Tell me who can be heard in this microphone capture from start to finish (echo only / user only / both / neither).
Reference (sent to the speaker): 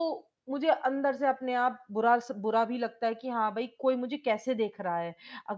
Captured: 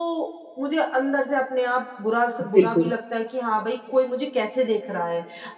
both